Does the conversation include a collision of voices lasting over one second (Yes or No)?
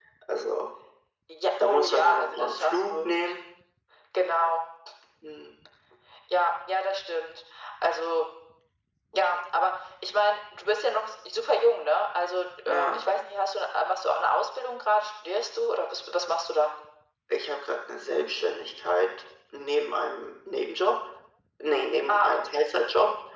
Yes